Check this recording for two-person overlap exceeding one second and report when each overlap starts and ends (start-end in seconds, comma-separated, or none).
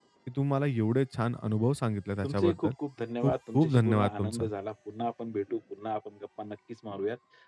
3.2-4.4